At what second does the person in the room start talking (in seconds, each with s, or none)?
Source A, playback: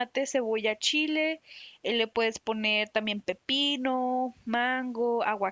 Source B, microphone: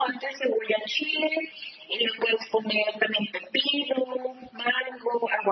none